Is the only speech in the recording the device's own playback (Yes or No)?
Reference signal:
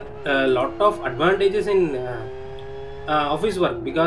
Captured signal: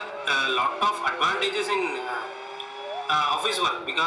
Yes